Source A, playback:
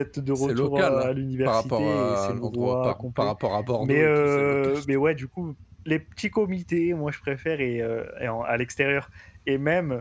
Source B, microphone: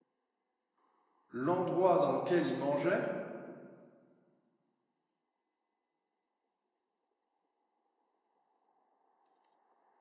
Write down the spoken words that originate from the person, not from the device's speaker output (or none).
l'endroit dans lequel il mangeait